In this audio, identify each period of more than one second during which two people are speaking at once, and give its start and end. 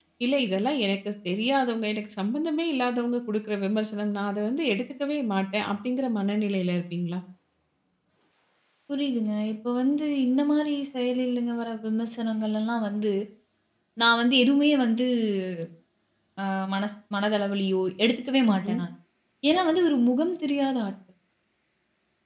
none

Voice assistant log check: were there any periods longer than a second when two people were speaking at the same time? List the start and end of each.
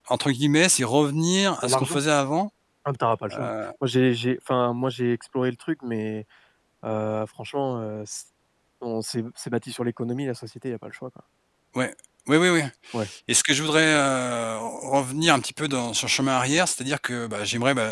none

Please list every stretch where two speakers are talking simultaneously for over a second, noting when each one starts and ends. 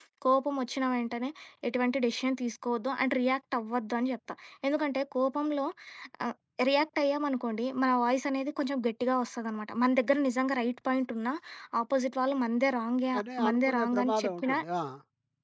13.2-14.6

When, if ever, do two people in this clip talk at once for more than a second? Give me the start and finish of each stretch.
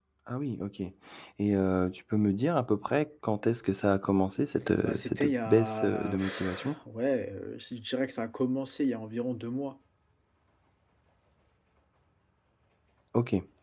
4.8-6.7

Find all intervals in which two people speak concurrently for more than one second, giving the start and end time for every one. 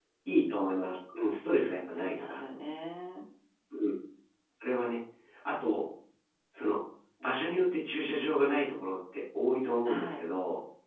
none

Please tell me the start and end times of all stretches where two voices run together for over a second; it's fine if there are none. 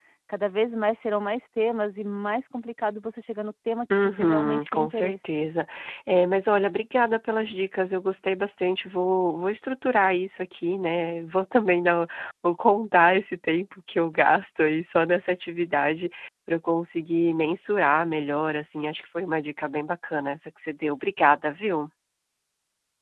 4.0-5.3

